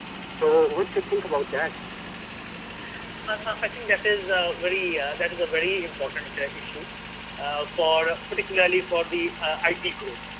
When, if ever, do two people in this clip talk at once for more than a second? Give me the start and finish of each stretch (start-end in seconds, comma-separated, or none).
none